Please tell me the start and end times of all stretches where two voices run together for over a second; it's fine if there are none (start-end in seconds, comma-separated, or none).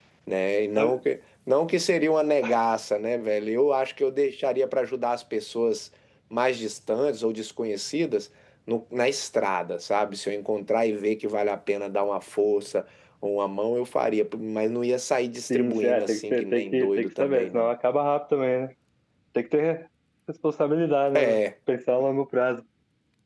15.5-17.7